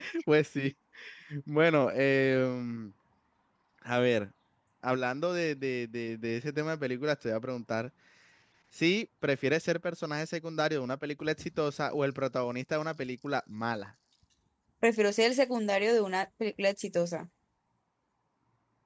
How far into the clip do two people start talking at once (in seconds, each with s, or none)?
none